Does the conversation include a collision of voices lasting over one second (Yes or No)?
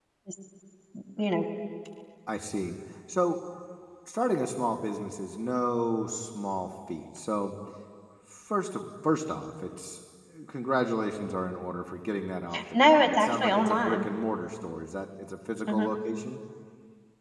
Yes